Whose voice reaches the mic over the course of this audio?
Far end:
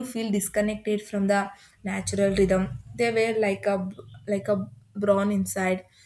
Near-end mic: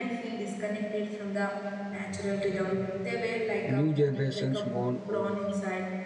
both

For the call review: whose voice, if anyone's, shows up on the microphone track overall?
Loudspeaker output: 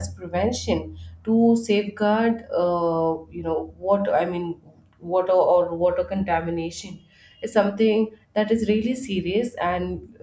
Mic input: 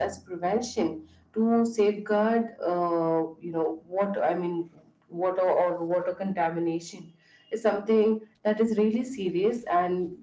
echo only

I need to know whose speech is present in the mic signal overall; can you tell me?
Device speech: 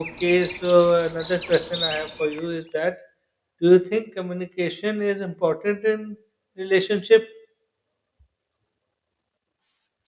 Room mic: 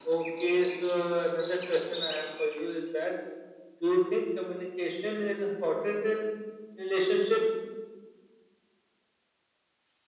echo only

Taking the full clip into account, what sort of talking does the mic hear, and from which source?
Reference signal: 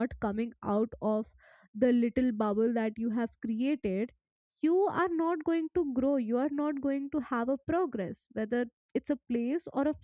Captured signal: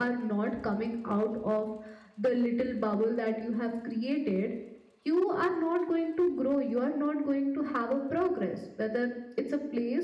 echo only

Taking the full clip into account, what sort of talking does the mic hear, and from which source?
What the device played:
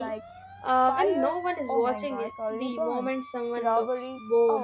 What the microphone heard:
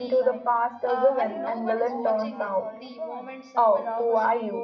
both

